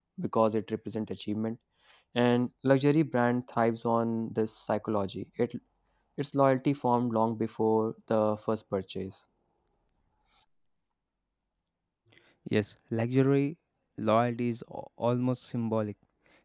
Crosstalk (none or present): none